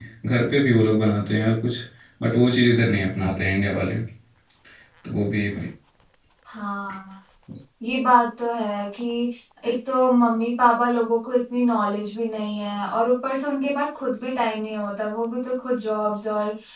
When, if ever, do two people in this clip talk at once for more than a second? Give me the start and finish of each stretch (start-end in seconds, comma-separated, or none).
none